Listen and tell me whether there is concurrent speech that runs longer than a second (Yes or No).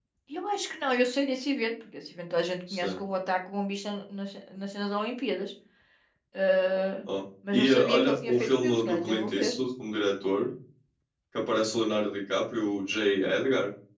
Yes